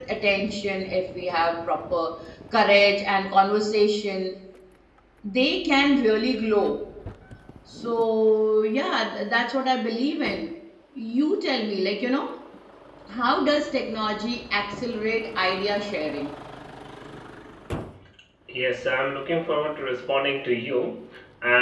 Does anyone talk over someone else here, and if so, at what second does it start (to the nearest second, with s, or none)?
none